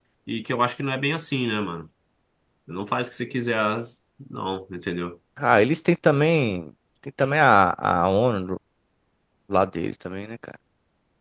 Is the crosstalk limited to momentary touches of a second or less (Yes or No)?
Yes